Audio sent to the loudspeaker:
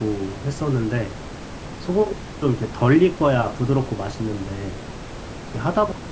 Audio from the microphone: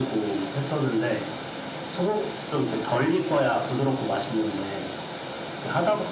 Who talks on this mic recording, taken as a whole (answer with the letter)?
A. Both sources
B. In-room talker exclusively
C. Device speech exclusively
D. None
C